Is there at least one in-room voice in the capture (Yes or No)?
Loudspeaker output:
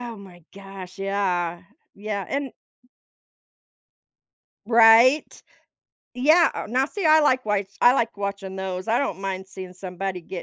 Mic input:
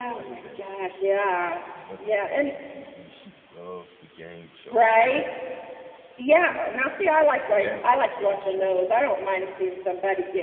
Yes